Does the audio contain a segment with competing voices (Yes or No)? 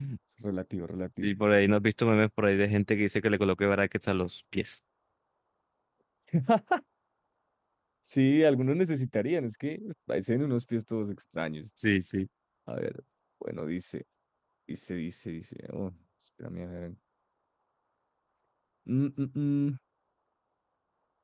No